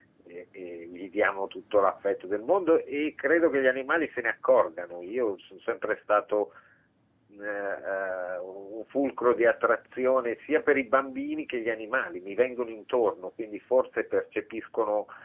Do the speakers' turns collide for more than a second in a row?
No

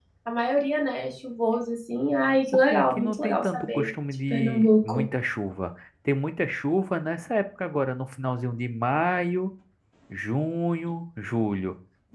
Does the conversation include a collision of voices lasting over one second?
Yes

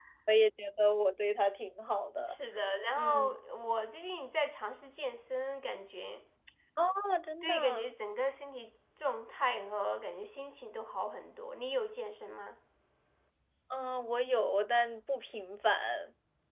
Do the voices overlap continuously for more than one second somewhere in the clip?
No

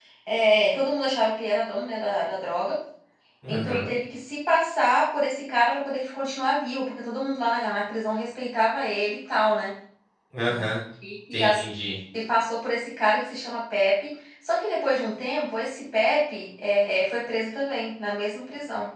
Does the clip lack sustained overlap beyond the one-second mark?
Yes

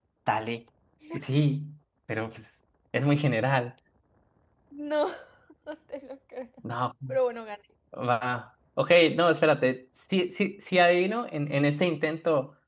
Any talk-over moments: No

